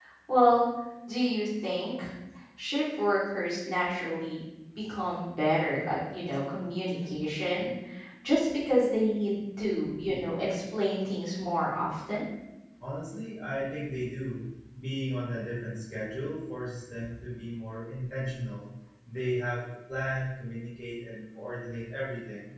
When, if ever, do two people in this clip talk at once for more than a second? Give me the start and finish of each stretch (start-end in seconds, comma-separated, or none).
none